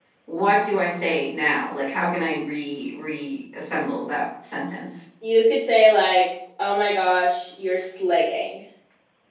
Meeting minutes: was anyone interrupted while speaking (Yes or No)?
No